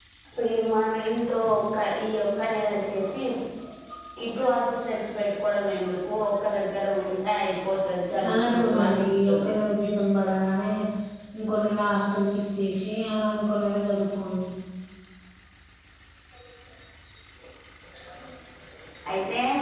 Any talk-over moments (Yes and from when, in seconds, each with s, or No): Yes, from 8.2 s